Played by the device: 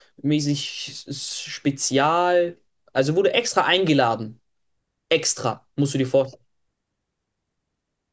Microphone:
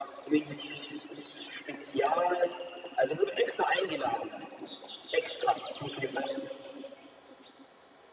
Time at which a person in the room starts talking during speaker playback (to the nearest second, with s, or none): none